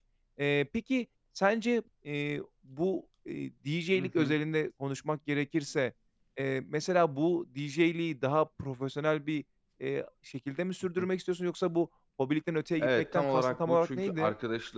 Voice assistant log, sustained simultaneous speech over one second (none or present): present